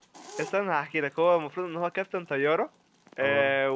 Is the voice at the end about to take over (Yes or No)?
No